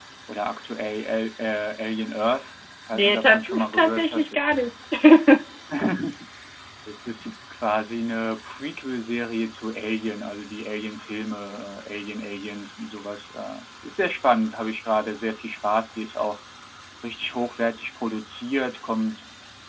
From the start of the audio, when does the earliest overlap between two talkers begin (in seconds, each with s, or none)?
2.9 s